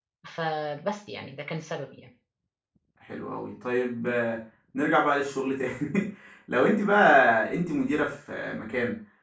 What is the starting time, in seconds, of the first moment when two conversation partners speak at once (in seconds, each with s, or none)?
none